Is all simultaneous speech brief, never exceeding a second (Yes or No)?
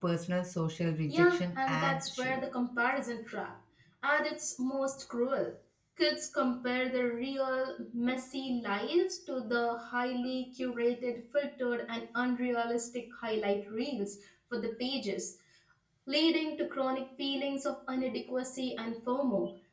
No